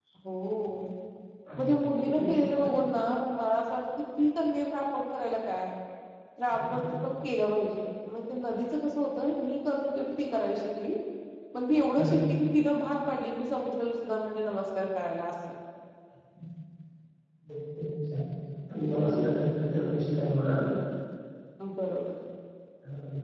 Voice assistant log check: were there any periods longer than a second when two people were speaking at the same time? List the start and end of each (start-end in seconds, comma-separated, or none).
none